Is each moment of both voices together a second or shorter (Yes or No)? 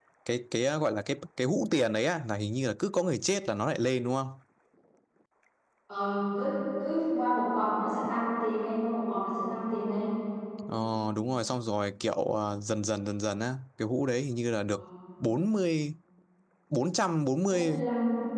Yes